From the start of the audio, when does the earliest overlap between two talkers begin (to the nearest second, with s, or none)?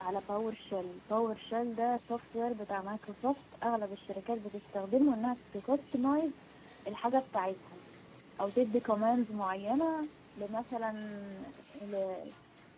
none